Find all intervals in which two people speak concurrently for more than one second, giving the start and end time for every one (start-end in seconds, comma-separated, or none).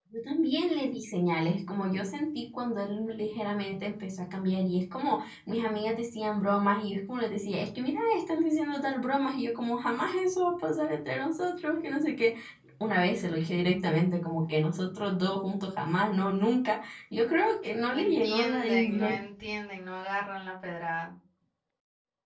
17.9-19.1